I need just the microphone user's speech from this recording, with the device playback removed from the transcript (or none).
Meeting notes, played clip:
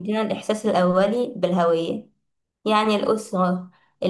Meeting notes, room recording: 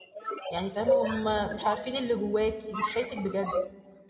يعني فاهمة هم مش عارفين اللي جواكي مش شايفك بجد